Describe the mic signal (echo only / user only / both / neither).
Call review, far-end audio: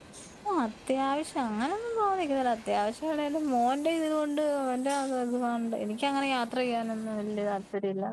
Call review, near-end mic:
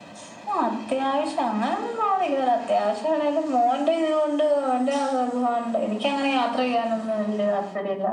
echo only